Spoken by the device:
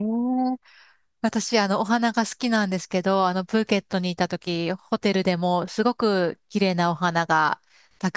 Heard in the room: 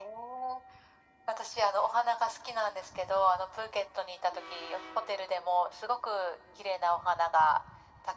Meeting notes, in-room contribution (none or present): none